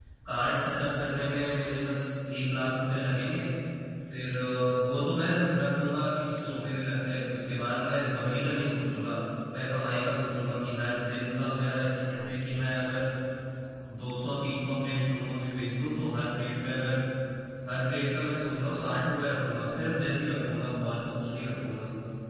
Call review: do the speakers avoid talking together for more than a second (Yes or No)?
Yes